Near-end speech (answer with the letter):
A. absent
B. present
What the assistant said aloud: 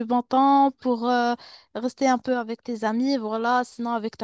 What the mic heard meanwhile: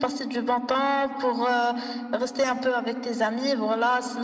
A